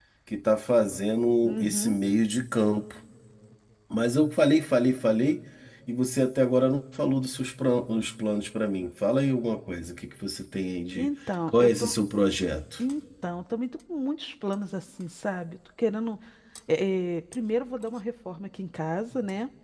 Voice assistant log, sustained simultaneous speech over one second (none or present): none